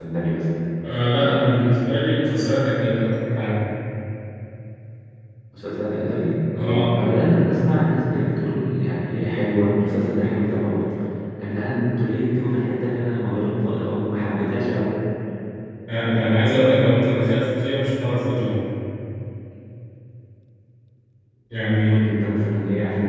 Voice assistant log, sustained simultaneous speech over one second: none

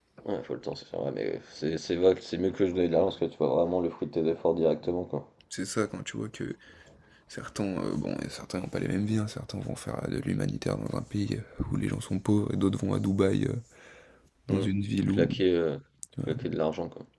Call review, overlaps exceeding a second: none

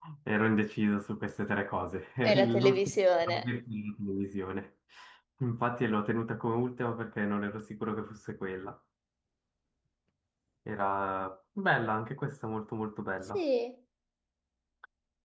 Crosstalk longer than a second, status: present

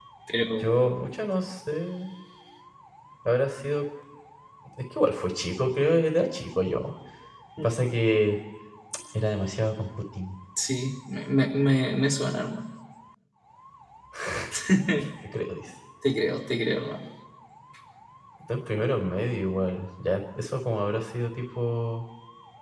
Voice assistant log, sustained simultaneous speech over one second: none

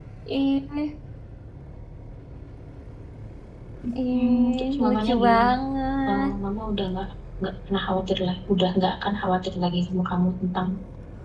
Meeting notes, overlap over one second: present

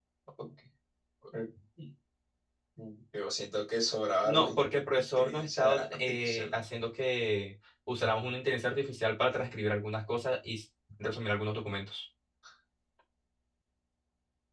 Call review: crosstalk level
present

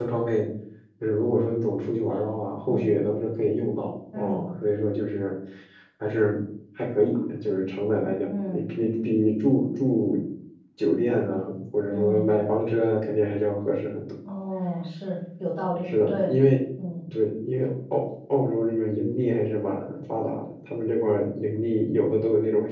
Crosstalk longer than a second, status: none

